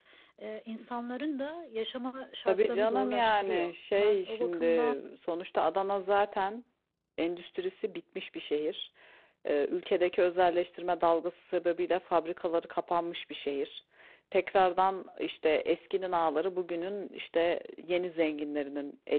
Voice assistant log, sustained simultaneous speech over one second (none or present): present